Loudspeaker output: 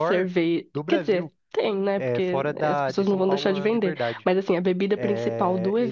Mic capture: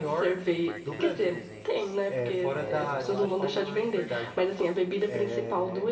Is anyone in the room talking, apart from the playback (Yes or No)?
Yes